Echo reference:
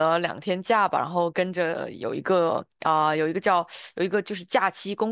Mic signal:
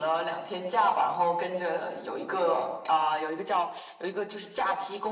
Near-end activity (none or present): none